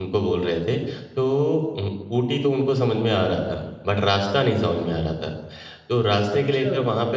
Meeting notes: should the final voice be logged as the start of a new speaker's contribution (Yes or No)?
No